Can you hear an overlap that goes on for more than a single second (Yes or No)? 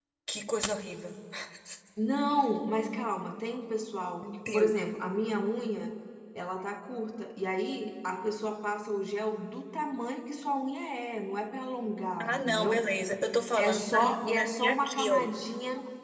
Yes